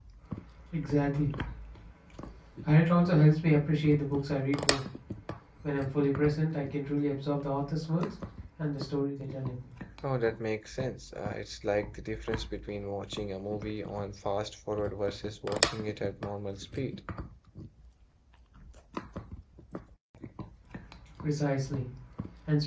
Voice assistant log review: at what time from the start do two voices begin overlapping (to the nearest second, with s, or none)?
none